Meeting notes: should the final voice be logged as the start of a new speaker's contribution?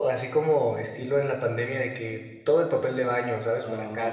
Yes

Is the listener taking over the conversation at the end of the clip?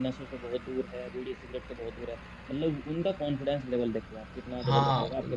Yes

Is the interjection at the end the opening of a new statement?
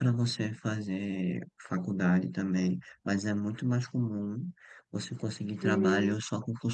No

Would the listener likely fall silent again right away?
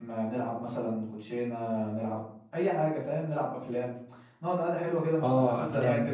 No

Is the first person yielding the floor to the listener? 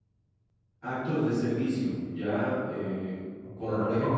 Yes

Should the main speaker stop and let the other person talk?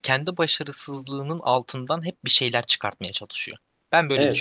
Yes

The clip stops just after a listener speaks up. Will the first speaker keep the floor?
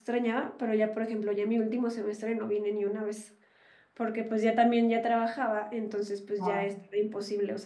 Yes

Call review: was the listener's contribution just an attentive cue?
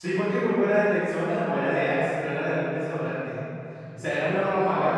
No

